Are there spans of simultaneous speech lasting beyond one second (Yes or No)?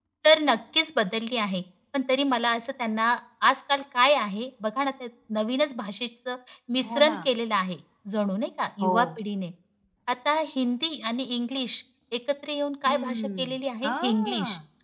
Yes